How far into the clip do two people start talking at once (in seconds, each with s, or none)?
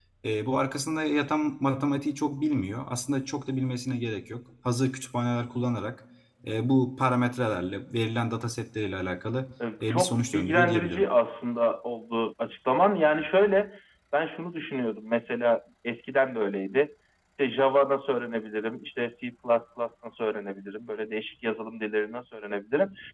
9.6 s